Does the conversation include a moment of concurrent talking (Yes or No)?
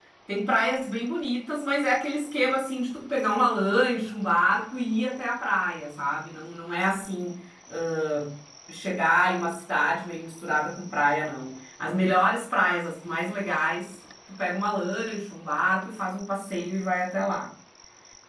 No